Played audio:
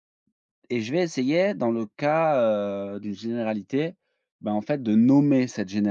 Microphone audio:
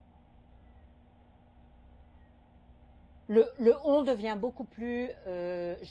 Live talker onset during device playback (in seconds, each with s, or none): 3.3 s